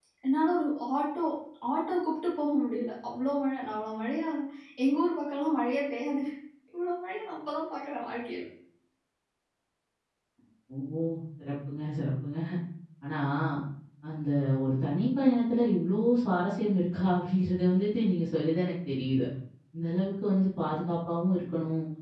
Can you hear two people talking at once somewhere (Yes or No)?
No